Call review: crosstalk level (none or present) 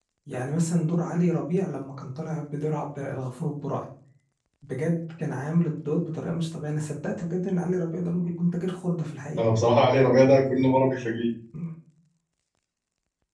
none